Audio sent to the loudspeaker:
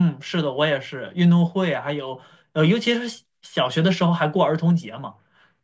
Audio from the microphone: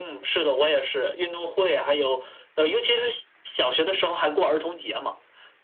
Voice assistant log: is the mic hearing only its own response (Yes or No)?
Yes